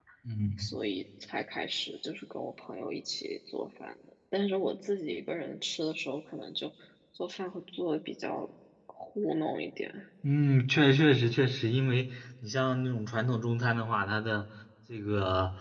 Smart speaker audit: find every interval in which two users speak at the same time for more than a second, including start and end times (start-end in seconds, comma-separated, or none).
none